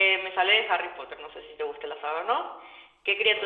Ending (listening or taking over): listening